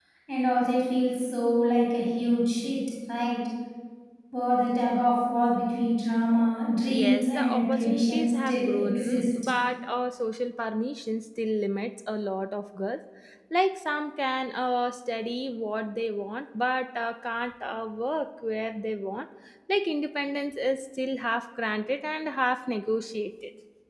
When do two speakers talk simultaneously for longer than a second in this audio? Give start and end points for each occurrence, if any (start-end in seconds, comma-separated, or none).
6.9-9.2